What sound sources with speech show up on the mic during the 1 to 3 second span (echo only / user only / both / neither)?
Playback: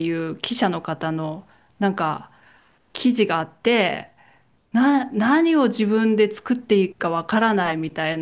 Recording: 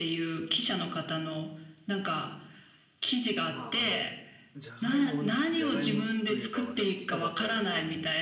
echo only